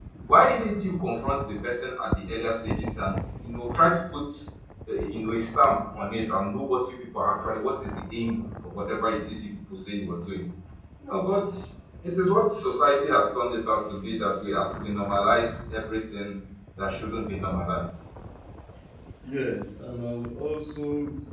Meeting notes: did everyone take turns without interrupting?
Yes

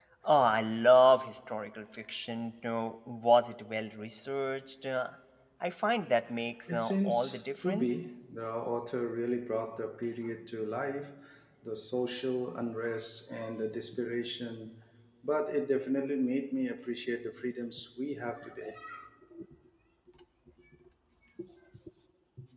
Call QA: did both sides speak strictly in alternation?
No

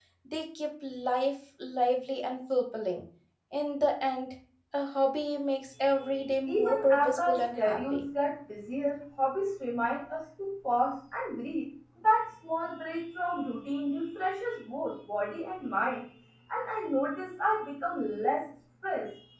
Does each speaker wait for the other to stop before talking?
No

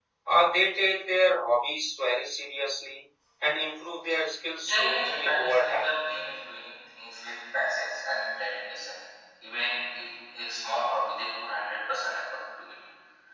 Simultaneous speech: Yes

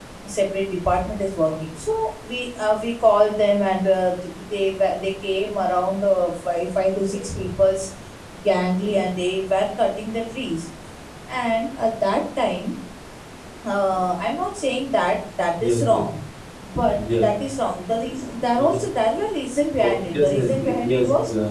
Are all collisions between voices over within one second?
No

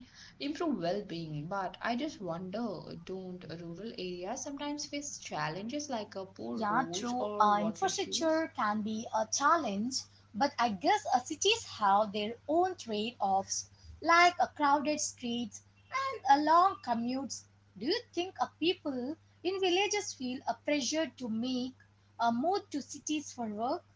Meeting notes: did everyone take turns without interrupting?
No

